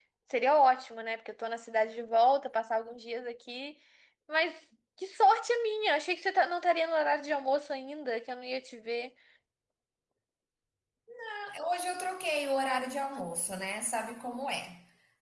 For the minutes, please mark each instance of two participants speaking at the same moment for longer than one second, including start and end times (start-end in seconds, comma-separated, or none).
none